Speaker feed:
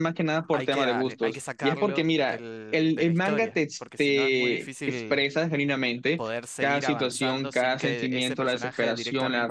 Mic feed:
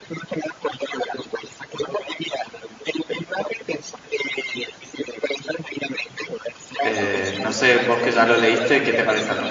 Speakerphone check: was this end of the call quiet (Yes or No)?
No